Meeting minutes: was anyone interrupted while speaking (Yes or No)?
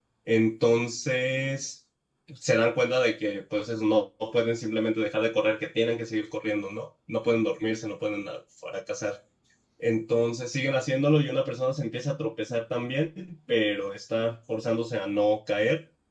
No